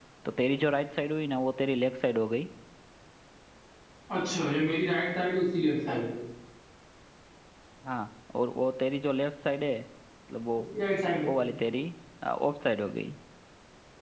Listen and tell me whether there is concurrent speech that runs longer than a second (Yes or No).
No